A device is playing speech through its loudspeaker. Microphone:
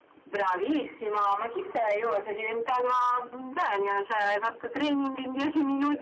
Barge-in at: none

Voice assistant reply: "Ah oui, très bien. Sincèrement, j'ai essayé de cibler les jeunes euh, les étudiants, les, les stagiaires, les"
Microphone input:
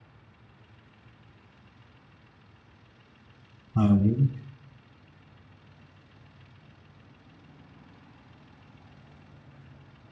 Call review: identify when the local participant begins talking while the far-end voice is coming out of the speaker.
3.7 s

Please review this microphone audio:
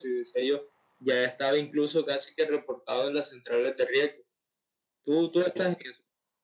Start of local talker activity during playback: none

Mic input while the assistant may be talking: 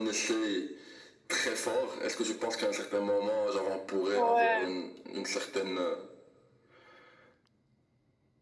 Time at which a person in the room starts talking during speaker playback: 4.1 s

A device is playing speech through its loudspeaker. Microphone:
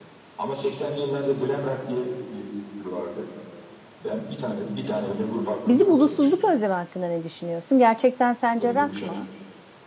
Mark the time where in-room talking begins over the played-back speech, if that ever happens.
5.7 s

